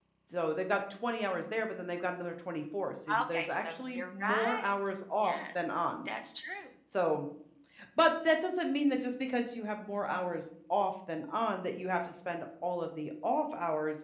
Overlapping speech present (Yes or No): Yes